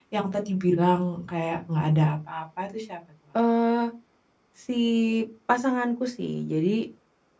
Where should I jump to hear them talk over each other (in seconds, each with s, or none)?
none